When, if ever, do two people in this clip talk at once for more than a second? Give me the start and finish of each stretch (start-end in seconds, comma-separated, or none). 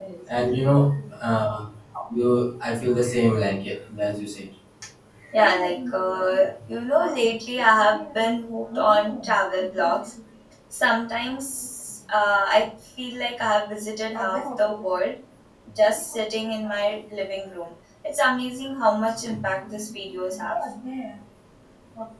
none